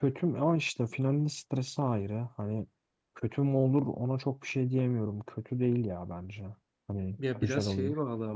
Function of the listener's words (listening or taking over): taking over